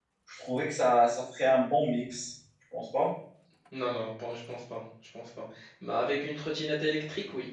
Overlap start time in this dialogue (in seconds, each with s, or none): none